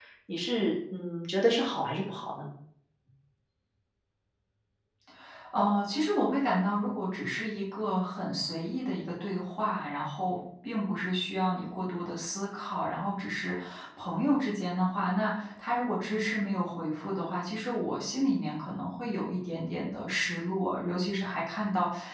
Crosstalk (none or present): none